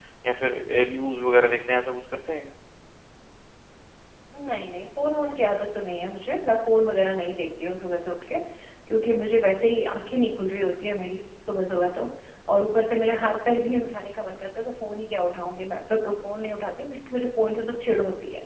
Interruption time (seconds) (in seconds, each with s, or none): none